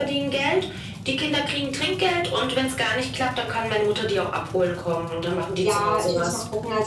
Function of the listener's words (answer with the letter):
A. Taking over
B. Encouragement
A